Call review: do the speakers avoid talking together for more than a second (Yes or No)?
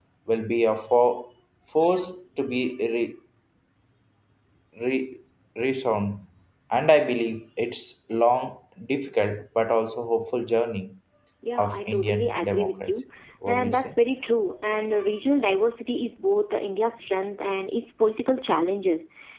No